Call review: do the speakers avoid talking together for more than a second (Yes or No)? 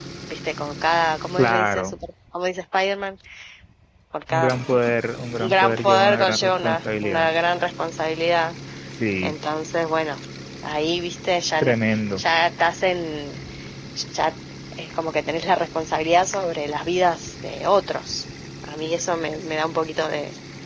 No